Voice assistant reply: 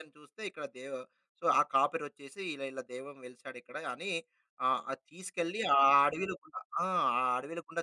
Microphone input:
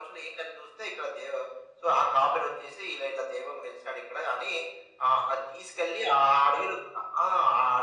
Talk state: echo only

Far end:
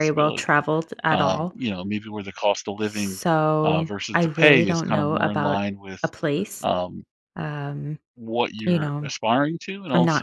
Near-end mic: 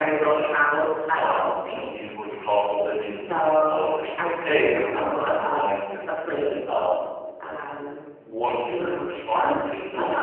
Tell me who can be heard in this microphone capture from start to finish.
echo only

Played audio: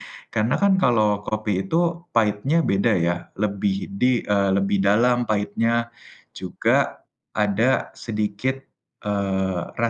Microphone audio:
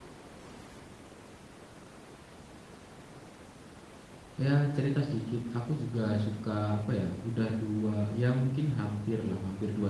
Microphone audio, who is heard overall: user only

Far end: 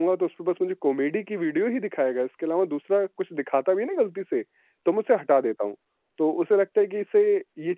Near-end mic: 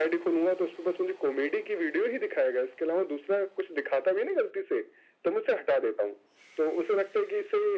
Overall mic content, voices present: echo only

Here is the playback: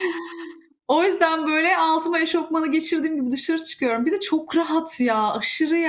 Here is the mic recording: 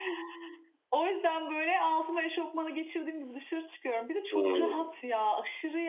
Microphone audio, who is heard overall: both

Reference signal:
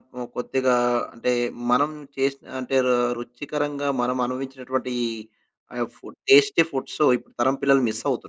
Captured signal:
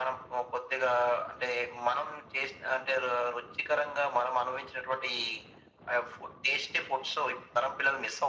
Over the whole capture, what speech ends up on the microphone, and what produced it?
echo only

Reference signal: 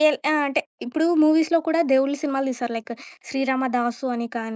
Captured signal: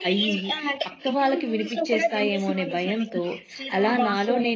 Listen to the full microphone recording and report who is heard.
both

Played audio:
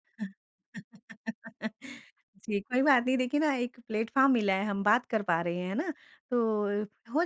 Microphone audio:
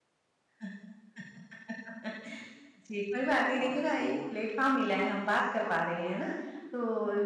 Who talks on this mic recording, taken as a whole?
both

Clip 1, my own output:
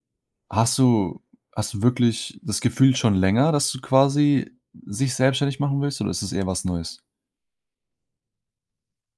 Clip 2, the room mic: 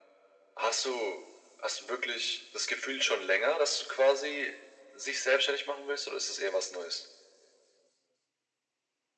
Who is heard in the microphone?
echo only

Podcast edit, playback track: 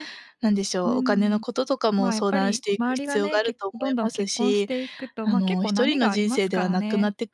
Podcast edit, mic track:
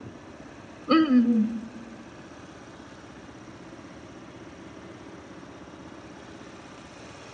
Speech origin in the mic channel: user only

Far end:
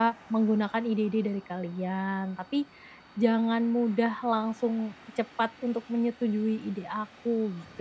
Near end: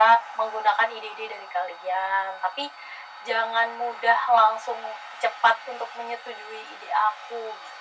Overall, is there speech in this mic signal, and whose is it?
echo only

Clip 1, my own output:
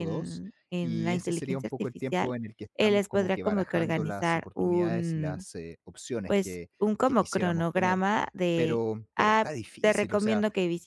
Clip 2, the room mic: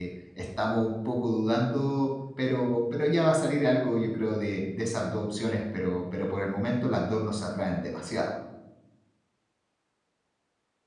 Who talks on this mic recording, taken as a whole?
user only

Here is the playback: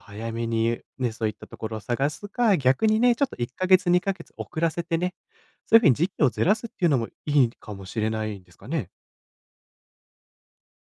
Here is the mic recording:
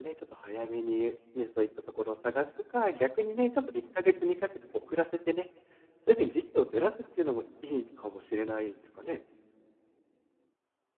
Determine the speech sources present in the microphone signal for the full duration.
echo only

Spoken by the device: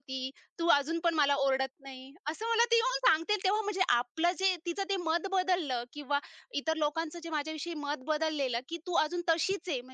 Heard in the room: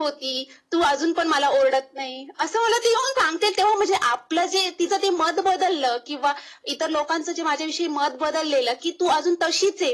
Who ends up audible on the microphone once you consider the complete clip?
echo only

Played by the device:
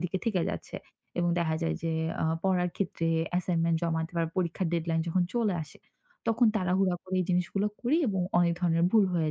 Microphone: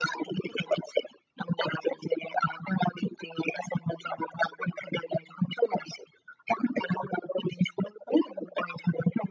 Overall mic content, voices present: echo only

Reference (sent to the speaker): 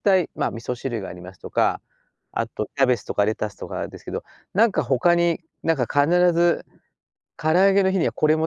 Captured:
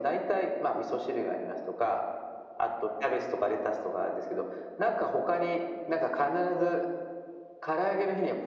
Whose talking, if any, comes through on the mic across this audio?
echo only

